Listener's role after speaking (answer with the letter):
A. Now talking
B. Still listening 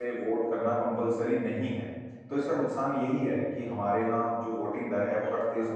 B